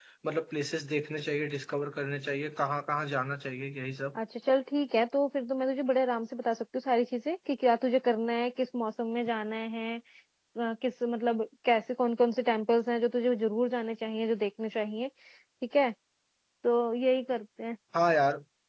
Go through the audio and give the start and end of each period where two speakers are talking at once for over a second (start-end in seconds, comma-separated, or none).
none